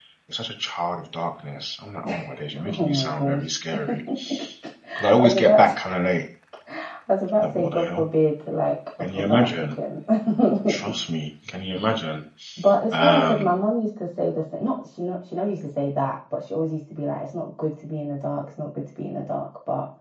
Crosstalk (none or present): present